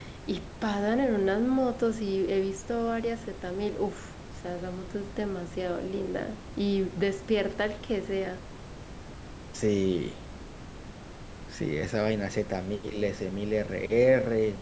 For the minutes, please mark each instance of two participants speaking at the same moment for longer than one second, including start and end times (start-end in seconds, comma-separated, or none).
none